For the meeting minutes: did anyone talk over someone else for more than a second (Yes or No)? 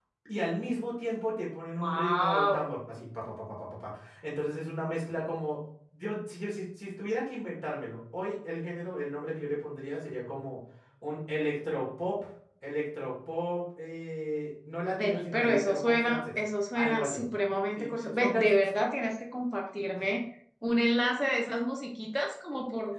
Yes